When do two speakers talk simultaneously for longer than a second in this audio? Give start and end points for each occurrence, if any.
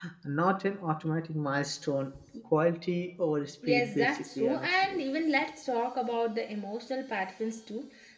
3.7-5.0

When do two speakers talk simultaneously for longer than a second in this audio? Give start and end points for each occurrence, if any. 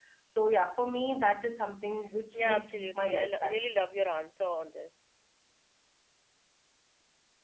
2.4-3.6

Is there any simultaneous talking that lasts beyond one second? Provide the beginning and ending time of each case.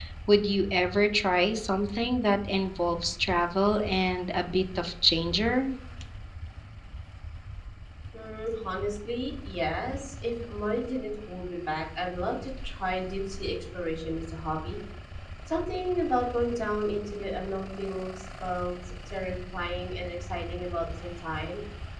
none

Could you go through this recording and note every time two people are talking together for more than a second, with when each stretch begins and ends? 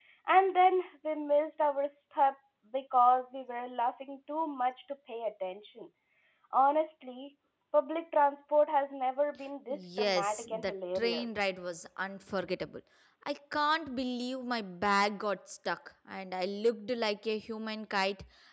9.7-11.4

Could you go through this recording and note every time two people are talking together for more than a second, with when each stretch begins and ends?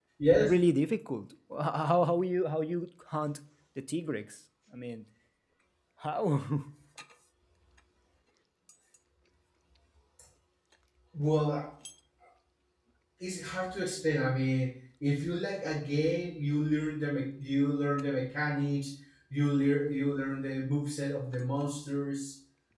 none

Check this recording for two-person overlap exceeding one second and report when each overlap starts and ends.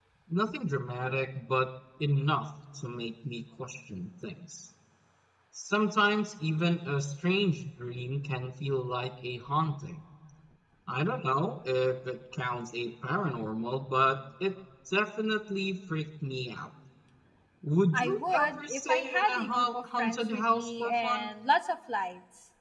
17.9-21.3

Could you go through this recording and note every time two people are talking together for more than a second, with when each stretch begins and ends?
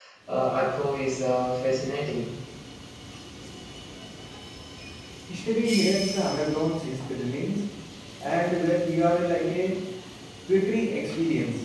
none

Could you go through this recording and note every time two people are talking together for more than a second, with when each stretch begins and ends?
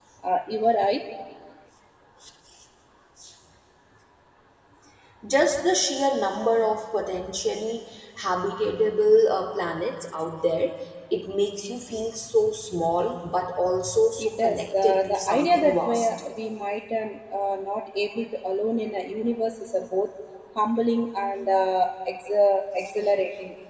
14.2-16.1

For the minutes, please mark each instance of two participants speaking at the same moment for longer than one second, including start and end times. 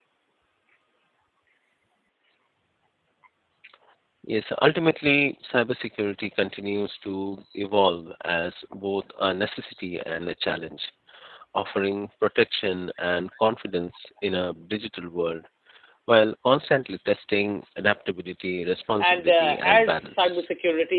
19.0-20.4

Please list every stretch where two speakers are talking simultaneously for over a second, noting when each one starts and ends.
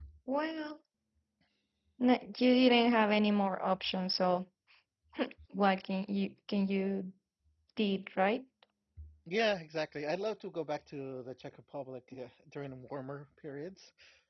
none

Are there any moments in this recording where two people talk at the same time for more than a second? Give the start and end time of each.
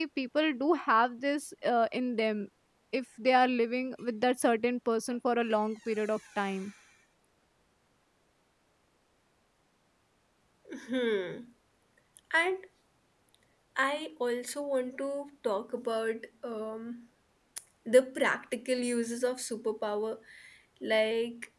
none

